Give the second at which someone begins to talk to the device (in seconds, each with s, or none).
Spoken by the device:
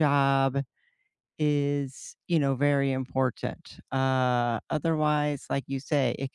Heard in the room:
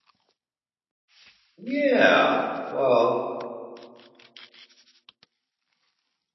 1.6 s